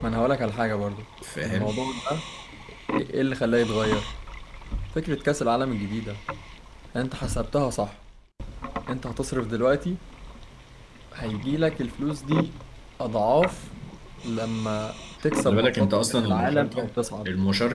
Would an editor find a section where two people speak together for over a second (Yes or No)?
Yes